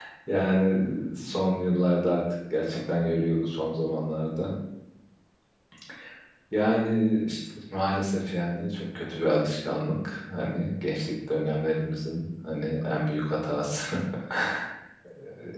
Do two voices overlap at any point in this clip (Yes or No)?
No